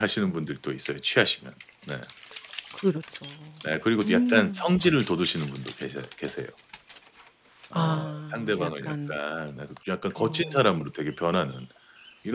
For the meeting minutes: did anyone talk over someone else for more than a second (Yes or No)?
Yes